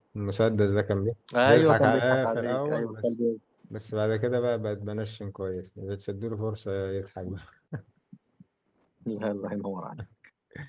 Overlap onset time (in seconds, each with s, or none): 1.3 s